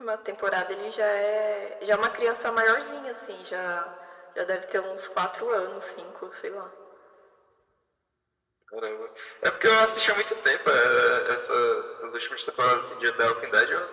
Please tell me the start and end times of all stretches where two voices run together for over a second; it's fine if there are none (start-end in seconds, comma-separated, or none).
none